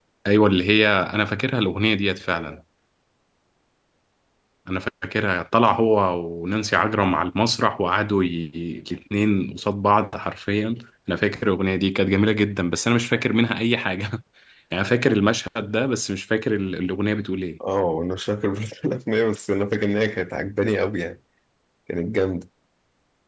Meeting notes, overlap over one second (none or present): none